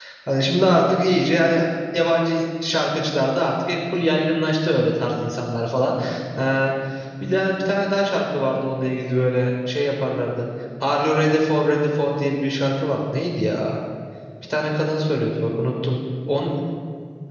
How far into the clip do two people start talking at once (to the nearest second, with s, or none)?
none